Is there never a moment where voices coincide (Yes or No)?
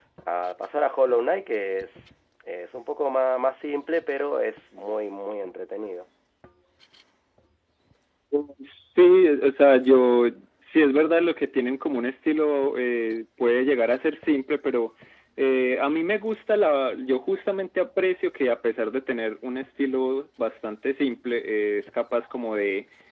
Yes